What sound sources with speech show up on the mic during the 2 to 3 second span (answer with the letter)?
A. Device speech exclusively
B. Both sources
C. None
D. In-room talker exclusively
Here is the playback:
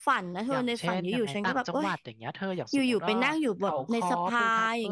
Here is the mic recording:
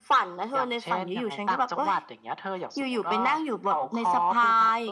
A